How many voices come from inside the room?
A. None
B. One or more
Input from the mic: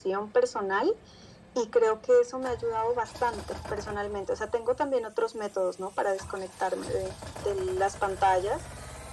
A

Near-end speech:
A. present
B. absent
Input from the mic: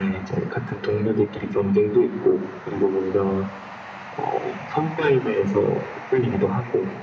B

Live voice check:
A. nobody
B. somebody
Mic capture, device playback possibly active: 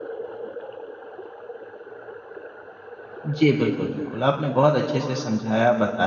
B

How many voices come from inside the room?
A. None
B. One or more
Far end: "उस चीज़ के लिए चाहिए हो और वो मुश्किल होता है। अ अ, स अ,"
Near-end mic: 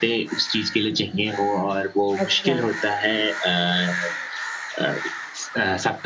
B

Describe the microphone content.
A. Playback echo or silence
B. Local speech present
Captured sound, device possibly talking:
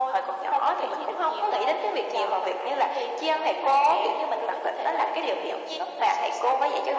A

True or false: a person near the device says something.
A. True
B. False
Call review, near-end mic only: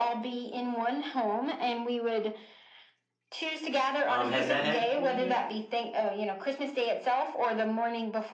A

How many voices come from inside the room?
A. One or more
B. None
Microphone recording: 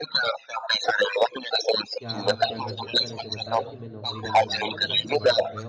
A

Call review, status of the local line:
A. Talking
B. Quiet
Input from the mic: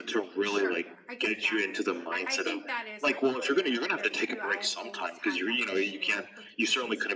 A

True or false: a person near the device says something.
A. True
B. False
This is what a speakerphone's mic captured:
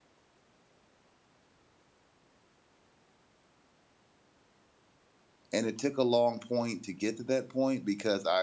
A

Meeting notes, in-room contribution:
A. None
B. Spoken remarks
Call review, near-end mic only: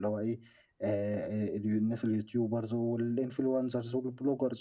A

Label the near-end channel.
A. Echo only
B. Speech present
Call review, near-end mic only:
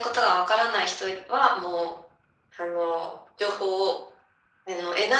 A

